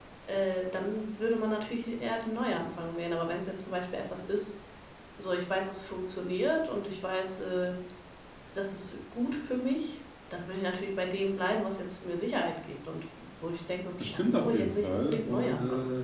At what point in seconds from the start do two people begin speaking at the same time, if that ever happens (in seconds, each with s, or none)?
14.0 s